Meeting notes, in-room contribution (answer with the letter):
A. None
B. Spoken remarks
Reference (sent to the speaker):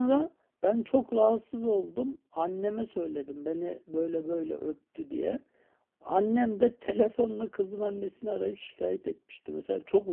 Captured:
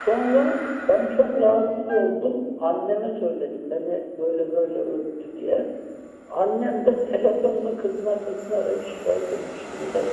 A